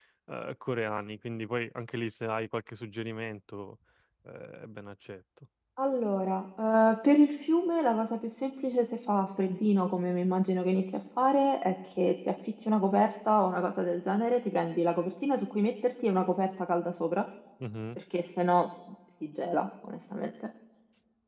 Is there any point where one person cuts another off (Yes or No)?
No